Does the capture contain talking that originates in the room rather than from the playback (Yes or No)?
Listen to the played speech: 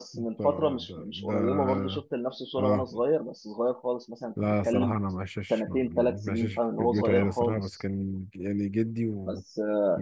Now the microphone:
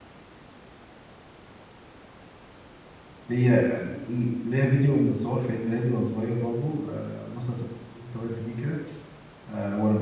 Yes